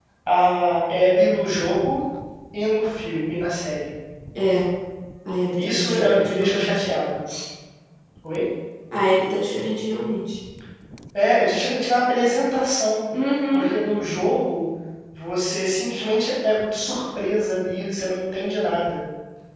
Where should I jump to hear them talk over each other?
5.6 s

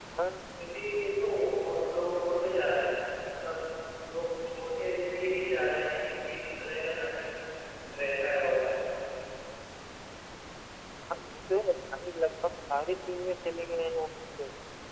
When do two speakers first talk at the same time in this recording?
none

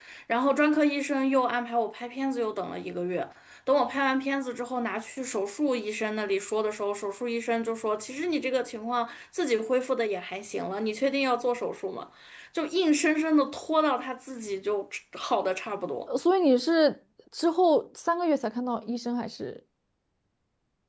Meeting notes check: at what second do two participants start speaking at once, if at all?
none

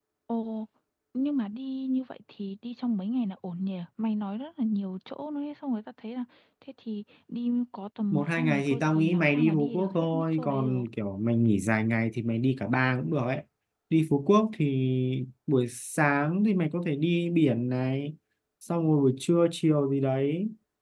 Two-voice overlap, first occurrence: 8.1 s

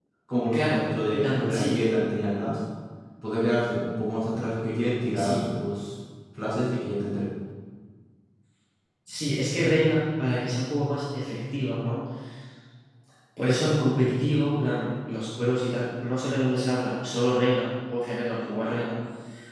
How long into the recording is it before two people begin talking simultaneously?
0.5 s

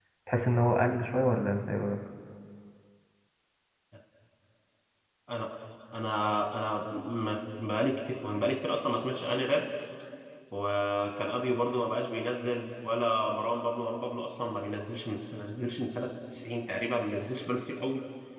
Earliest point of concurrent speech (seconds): none

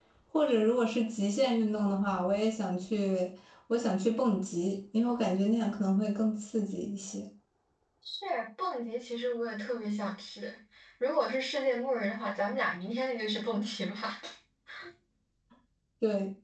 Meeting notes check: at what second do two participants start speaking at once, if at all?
none

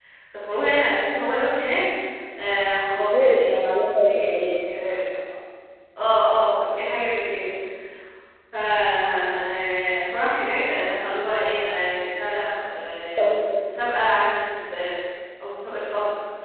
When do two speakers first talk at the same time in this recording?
3.1 s

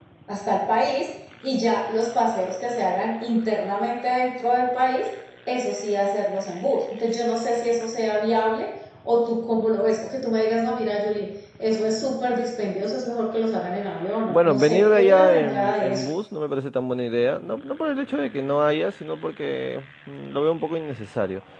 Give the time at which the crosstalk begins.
14.3 s

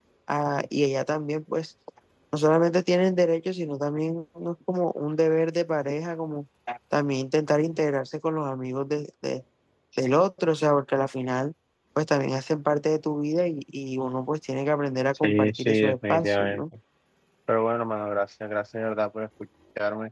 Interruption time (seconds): 15.2 s

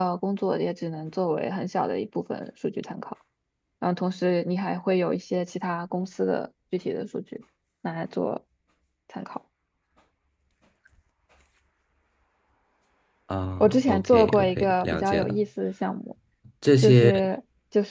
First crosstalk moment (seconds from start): 13.6 s

